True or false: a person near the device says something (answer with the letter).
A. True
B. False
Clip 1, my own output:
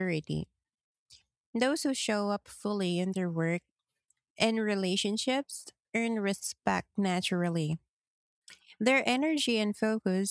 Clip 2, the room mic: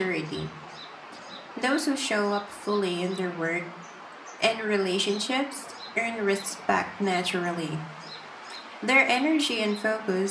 B